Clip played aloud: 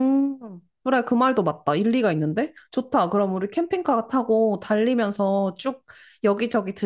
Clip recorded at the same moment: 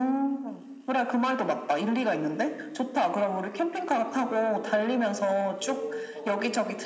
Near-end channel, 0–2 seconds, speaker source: echo only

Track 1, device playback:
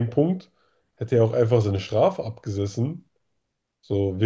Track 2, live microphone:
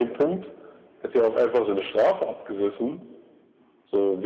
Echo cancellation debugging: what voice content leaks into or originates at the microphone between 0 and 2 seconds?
echo only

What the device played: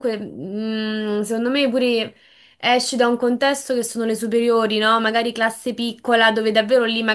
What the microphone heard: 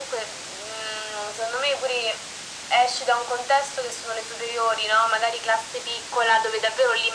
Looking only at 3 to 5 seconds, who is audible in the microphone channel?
echo only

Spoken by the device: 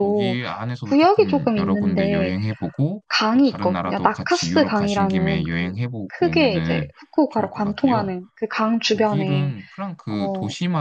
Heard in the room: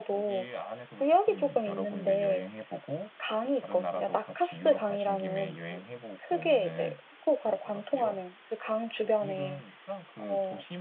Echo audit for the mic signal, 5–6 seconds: echo only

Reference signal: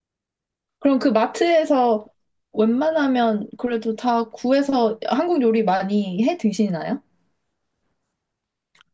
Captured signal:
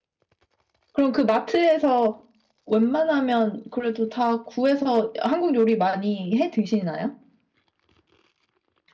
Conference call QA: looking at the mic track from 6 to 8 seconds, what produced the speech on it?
echo only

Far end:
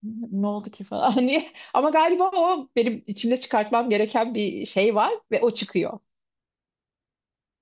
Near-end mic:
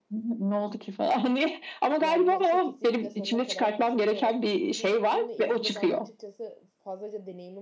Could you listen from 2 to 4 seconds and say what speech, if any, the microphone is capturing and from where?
both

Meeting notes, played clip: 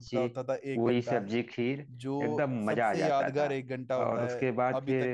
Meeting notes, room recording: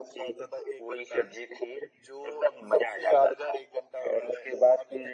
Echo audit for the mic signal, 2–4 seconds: echo only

